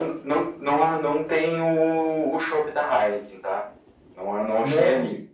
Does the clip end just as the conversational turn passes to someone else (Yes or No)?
No